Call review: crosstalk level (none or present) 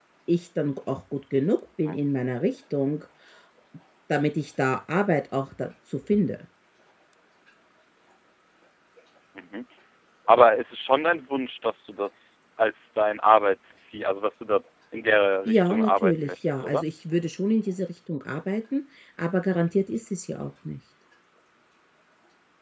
present